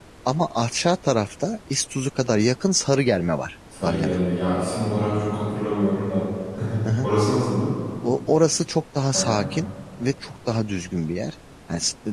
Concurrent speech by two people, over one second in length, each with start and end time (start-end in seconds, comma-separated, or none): none